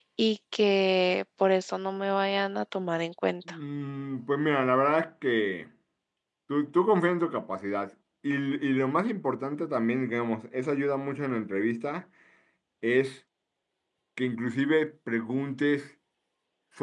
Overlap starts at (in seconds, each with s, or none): none